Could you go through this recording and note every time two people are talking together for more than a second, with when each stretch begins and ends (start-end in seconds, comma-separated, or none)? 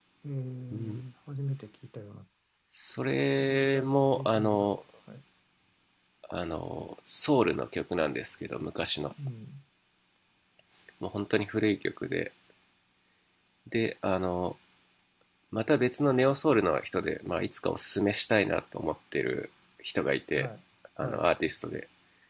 3.4-4.7